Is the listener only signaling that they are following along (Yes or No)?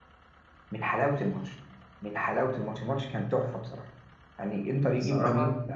Yes